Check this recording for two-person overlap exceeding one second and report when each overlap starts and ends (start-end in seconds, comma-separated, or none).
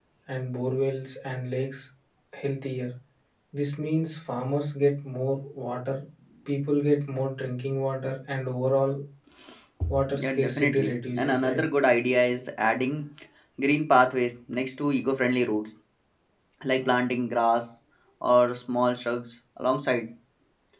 10.1-11.6